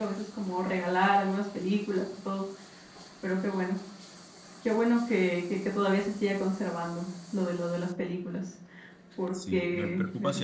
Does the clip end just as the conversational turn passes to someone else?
Yes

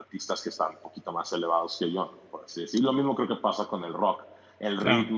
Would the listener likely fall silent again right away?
Yes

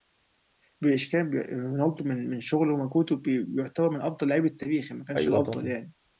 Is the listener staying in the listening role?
No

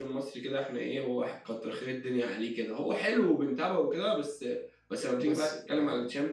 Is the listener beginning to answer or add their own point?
No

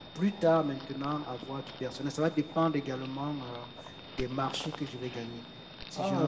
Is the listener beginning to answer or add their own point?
No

